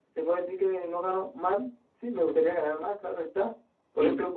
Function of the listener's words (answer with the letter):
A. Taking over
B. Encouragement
B